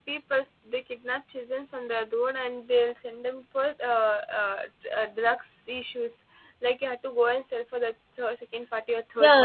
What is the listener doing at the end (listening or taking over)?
taking over